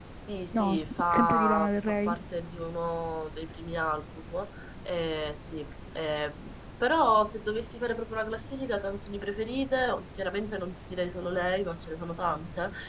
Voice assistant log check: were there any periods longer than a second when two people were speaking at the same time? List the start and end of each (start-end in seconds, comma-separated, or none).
0.5-2.2